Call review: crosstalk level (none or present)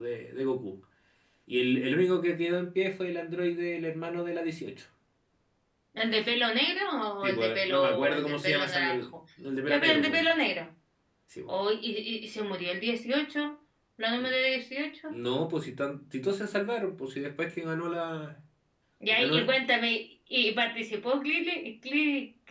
present